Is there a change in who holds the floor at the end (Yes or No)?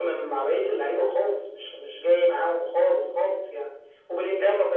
No